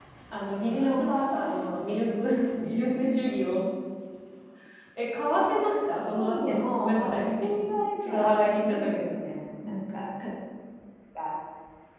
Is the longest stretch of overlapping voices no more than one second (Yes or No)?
No